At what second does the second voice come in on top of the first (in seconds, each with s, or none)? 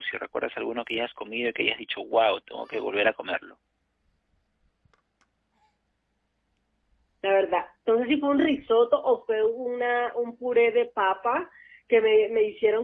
none